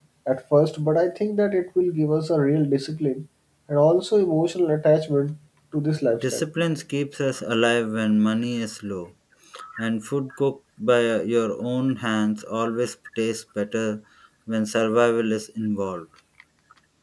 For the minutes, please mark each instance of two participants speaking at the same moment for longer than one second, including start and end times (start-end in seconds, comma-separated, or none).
none